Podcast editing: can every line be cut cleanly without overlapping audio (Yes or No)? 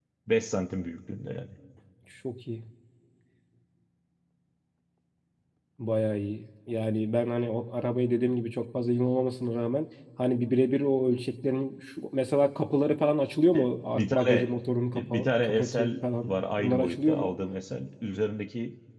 No